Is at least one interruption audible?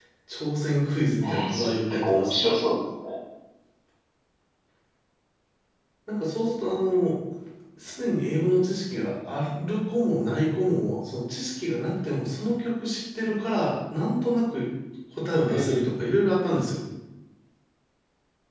Yes, from 1.2 s

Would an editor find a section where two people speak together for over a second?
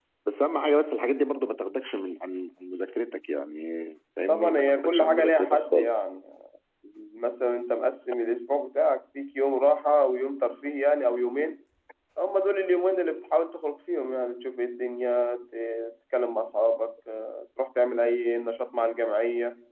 Yes, from 4.3 s

